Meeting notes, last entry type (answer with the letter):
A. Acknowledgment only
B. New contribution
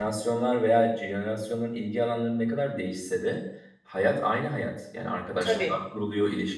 A